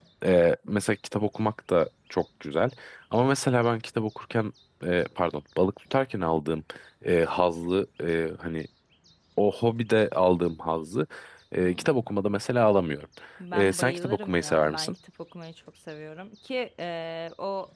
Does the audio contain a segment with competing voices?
Yes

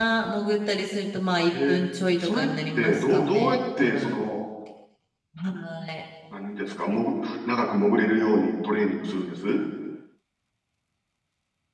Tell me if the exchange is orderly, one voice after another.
No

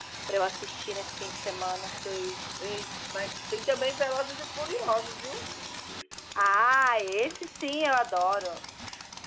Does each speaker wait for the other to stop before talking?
Yes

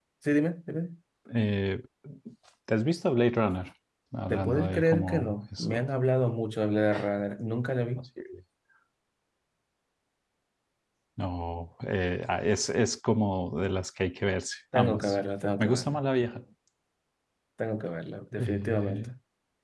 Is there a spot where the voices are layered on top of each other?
Yes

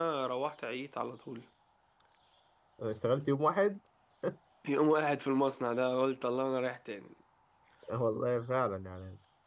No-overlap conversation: Yes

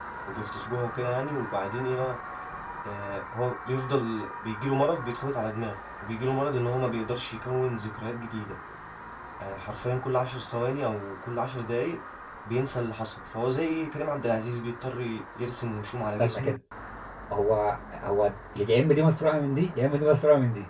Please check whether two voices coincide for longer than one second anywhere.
No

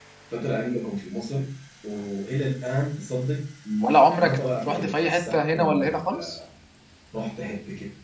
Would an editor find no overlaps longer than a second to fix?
No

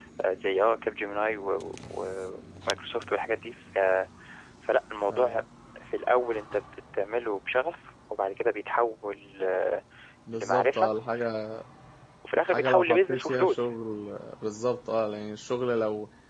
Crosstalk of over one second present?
Yes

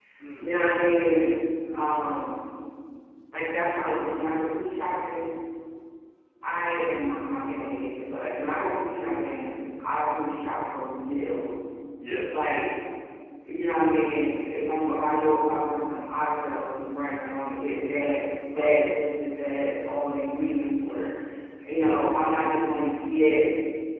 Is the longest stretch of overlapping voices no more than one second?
Yes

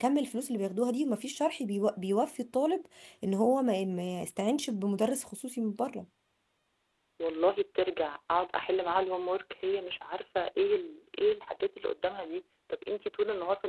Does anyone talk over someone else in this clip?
No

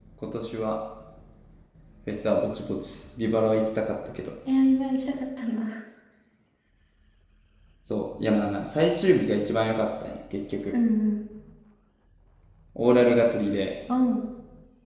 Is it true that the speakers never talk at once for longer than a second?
Yes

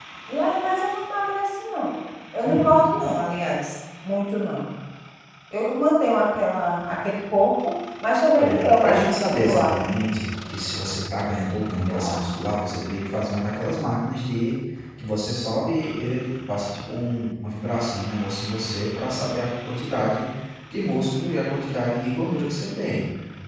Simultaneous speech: Yes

